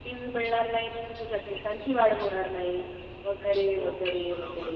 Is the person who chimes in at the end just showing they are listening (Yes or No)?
No